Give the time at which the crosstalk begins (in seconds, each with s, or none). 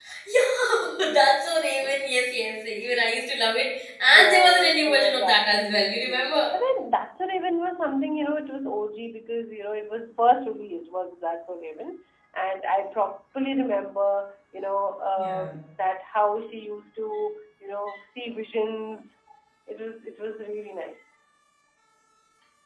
4.1 s